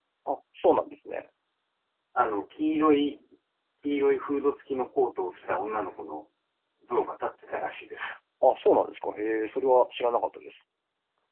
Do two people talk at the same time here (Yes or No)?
No